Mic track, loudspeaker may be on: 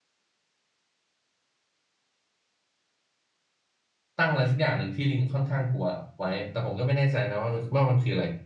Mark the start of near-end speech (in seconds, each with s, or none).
4.2 s